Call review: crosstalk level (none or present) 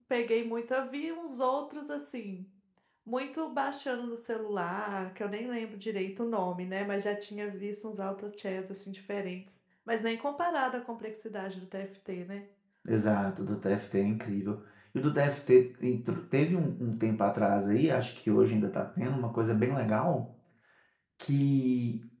none